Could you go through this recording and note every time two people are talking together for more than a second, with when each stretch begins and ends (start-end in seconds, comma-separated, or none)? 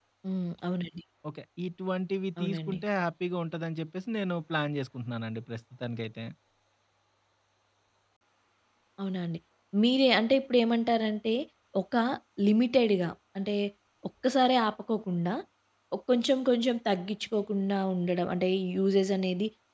none